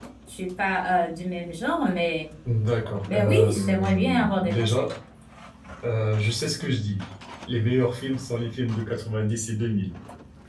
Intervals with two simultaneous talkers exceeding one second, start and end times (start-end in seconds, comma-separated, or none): 3.1-4.9